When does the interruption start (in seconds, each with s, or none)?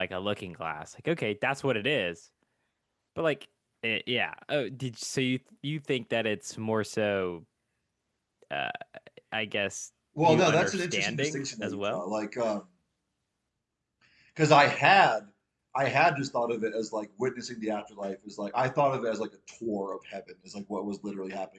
10.2 s